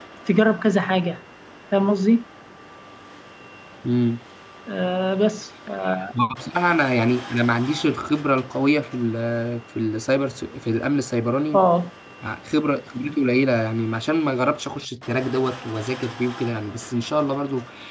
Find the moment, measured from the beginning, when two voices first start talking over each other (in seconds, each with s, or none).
none